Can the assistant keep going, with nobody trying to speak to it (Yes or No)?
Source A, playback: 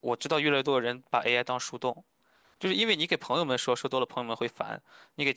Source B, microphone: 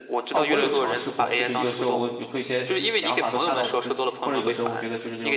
No